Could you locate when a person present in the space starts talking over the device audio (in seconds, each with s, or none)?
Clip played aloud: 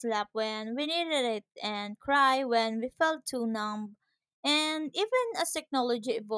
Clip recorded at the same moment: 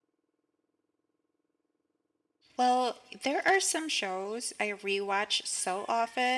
2.6 s